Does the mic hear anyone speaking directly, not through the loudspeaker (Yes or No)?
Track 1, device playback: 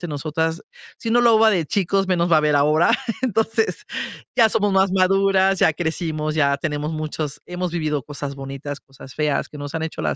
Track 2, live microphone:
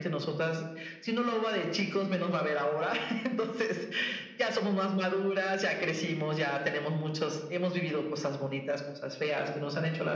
No